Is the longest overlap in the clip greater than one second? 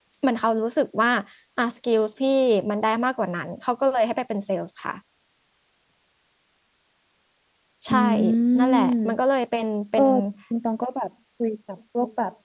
No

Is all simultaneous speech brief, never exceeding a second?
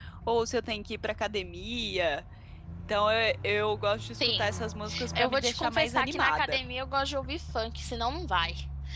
No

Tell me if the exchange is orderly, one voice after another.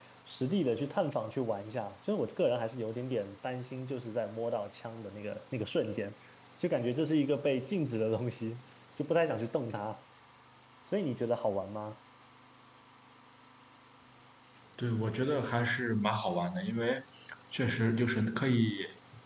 Yes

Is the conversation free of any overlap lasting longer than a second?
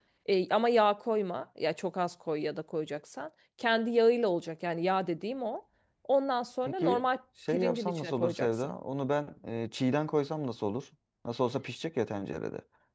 No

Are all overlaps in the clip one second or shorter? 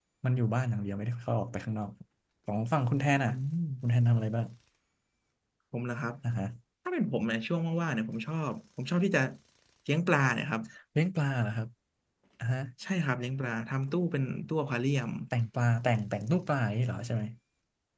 Yes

